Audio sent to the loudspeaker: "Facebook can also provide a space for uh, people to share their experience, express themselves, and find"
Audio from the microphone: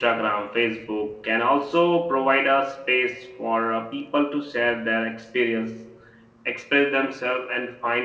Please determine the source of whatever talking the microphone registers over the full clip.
echo only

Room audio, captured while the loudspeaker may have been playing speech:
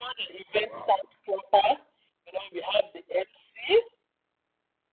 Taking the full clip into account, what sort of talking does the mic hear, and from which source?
both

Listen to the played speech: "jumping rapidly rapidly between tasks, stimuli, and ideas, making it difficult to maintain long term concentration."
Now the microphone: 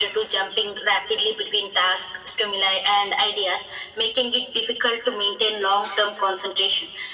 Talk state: echo only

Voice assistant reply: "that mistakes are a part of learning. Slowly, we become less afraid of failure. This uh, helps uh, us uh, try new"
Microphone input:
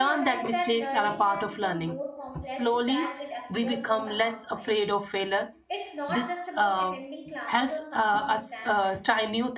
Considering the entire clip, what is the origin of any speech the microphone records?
both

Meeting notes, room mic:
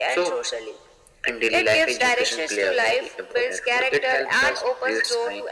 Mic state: echo only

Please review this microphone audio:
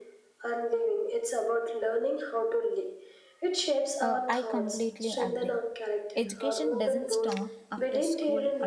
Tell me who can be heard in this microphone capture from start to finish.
both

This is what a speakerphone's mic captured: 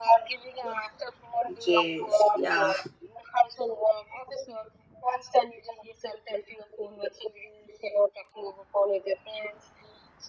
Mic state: both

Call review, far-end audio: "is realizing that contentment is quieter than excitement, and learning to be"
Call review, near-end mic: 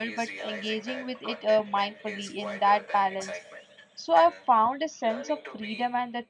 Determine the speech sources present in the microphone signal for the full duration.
both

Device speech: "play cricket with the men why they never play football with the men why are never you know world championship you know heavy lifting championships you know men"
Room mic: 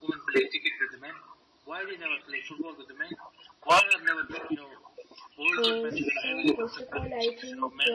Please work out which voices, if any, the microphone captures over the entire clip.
both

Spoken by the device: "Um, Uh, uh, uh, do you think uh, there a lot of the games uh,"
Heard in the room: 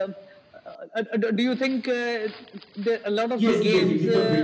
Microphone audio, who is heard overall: both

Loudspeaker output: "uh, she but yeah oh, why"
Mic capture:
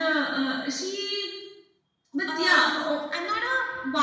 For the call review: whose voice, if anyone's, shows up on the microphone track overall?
both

